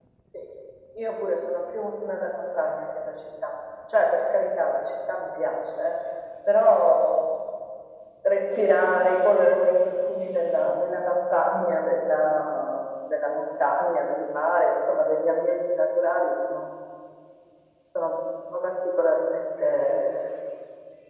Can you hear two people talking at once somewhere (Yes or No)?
No